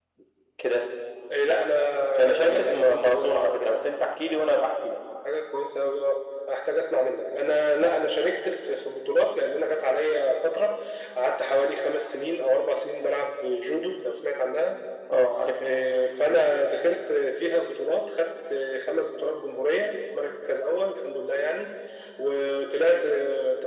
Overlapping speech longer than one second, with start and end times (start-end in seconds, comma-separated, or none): 2.3-3.6